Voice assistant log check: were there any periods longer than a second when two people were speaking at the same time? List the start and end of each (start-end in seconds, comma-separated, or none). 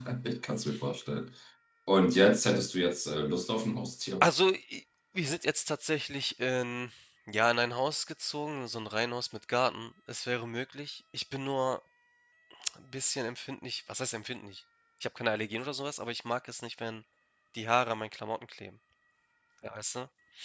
none